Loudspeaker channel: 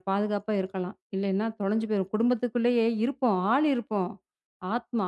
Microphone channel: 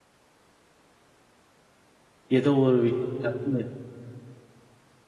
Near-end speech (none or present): present